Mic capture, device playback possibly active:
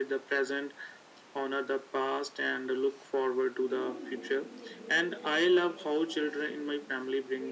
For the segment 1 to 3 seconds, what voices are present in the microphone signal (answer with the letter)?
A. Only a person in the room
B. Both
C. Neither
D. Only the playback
D